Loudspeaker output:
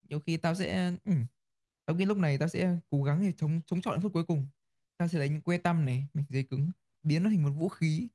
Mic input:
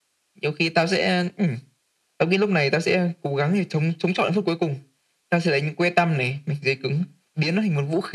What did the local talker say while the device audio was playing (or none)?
none